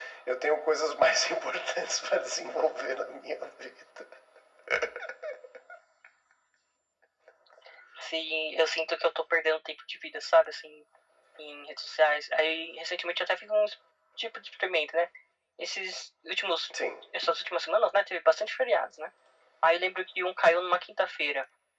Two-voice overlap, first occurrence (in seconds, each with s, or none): none